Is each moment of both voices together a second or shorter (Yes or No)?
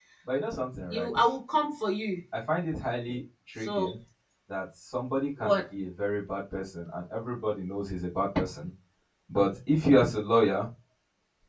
Yes